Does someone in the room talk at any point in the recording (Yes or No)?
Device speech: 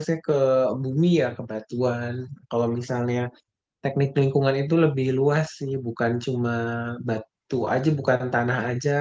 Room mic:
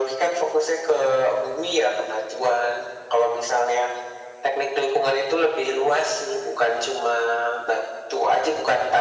No